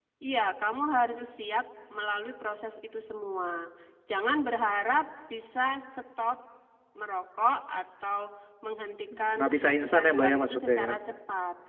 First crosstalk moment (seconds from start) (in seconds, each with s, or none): 9.2 s